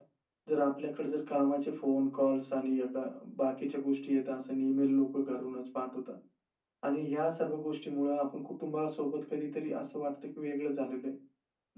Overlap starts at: none

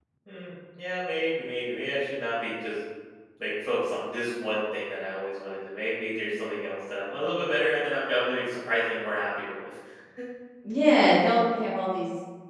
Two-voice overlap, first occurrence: none

